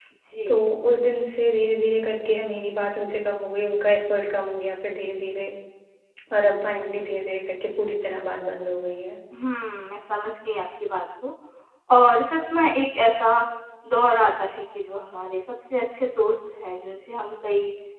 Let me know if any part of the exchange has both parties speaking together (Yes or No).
No